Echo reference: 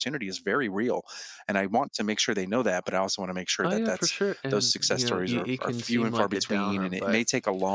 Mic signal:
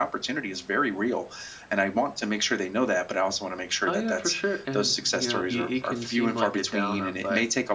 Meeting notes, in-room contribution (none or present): none